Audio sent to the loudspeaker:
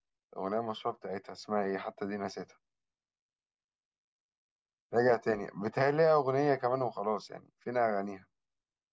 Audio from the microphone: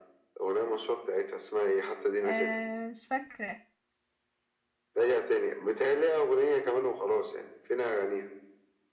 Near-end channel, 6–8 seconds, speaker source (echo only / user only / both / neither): echo only